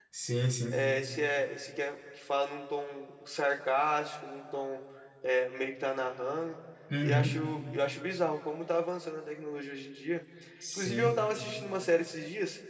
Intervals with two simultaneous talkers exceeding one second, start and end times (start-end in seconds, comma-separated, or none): none